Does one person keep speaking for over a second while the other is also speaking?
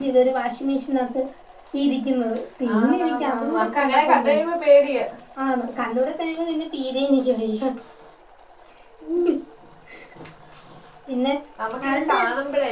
Yes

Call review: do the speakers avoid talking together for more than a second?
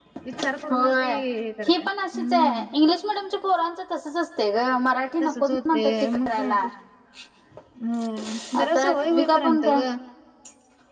No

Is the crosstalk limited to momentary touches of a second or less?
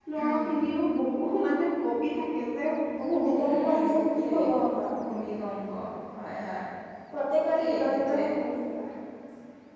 No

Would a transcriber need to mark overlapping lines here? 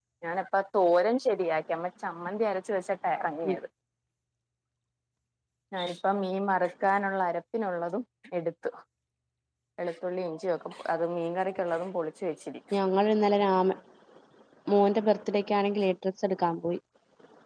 No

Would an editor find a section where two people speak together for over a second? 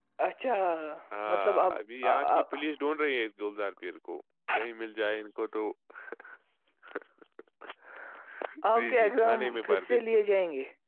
Yes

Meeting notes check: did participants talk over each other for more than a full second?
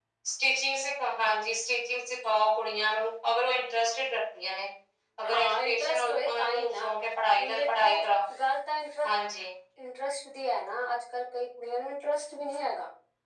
Yes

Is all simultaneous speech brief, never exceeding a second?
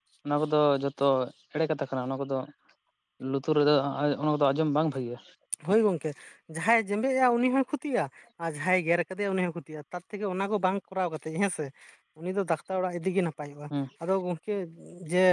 Yes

